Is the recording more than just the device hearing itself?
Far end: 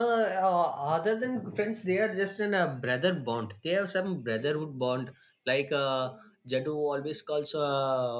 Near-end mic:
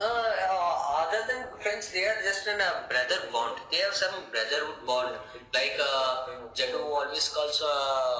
Yes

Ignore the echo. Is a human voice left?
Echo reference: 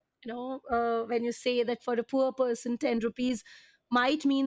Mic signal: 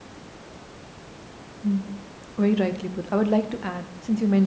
Yes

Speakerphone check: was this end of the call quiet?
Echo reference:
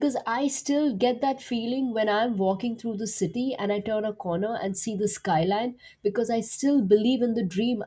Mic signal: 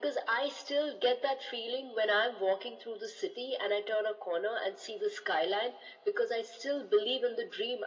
Yes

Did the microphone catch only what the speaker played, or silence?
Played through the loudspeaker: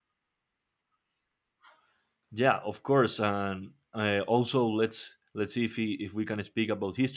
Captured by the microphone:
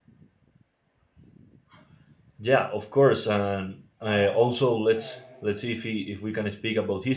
No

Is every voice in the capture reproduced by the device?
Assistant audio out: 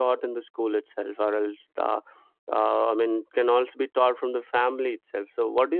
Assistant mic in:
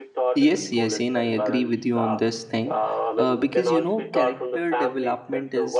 No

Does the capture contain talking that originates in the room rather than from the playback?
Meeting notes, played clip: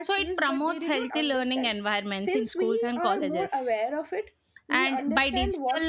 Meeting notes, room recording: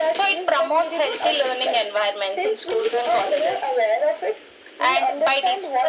No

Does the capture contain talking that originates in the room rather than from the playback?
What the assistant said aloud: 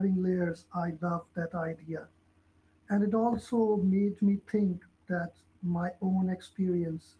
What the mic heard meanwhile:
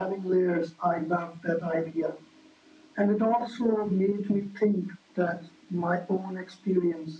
No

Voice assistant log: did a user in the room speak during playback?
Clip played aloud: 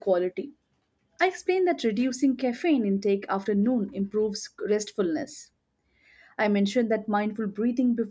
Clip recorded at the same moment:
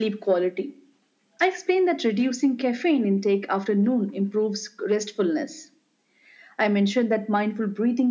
No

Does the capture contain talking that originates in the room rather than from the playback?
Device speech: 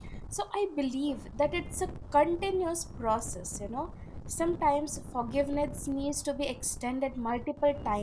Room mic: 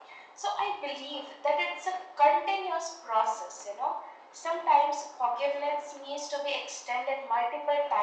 No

